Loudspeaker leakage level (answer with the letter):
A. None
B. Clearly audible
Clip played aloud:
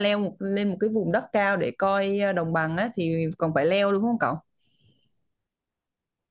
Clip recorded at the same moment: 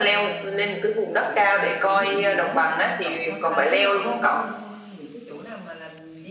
B